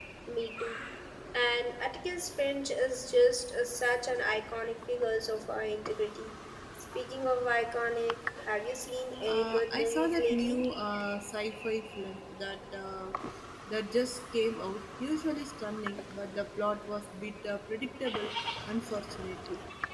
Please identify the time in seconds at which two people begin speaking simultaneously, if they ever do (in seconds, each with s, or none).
9.3 s